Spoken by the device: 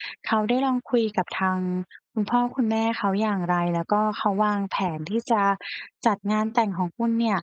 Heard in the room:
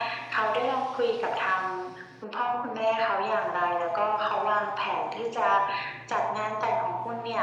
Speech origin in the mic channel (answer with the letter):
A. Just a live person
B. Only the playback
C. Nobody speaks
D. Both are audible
B